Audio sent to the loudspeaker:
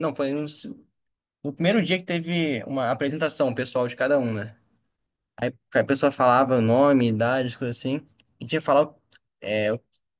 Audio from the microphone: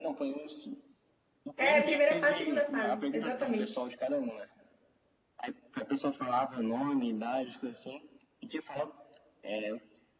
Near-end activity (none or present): present